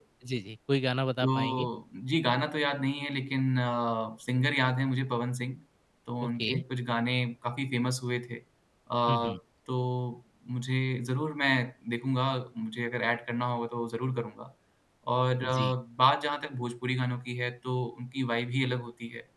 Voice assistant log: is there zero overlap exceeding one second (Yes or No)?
Yes